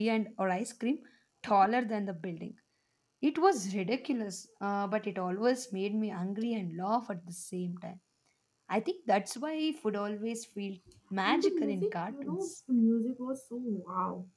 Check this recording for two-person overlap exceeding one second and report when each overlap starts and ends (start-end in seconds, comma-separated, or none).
11.2-12.5